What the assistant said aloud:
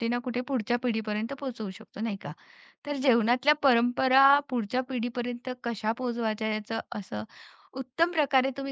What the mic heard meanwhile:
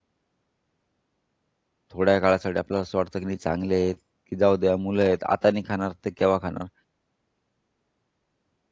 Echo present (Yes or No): No